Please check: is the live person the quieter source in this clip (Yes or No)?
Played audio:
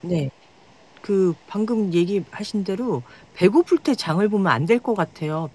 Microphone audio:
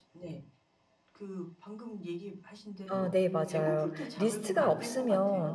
No